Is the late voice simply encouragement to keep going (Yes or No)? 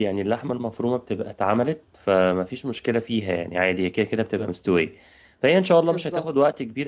Yes